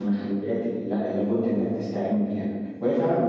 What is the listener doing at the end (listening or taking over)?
listening